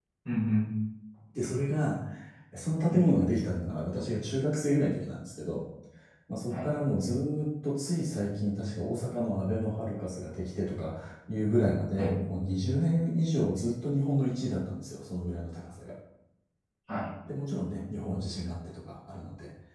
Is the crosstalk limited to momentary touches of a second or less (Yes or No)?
Yes